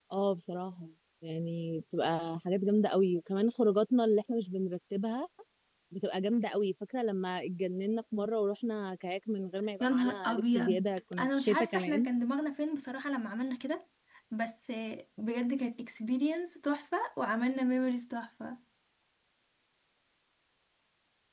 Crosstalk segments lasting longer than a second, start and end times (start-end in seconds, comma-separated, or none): 9.8-12.1